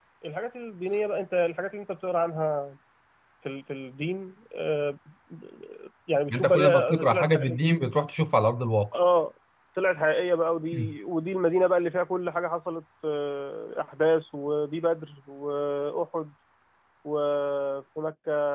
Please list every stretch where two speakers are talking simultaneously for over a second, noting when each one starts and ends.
6.3-7.6

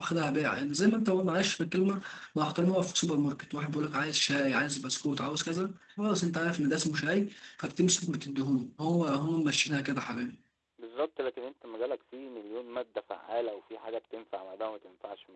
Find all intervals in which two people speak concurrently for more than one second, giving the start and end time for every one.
none

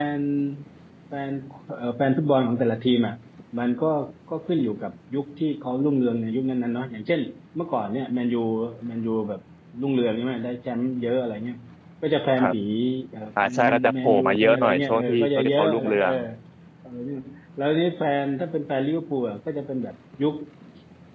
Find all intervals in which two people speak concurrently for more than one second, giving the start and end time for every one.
13.4-16.1

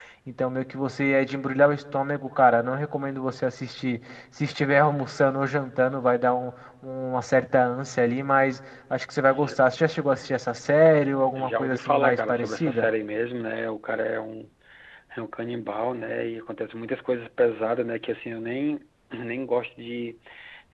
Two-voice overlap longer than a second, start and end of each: 11.4-12.9

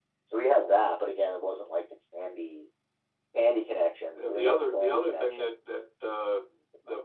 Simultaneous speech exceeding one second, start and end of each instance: 4.2-5.5

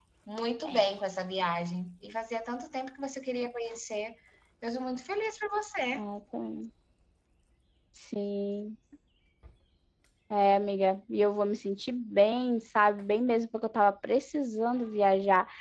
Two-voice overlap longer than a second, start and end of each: none

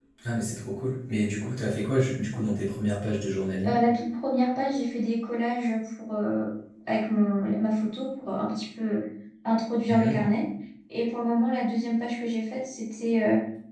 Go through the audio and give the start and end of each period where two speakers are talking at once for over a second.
none

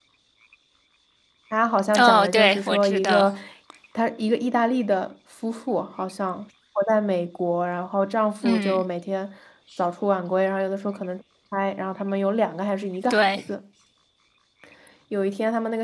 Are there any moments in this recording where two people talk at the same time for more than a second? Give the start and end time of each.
1.9-3.3

